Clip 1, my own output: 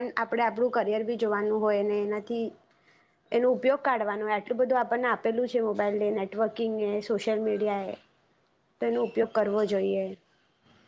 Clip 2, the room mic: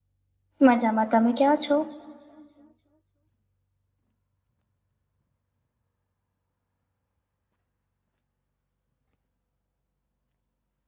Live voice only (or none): મજામાં. તમે ક્યા છો?